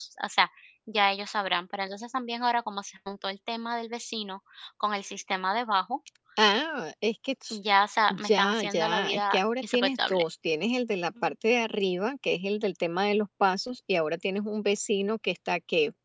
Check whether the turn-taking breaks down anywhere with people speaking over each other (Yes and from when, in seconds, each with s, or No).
Yes, from 8.1 s